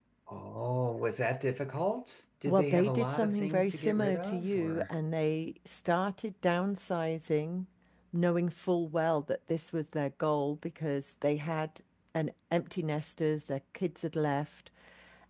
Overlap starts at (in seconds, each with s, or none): 2.5 s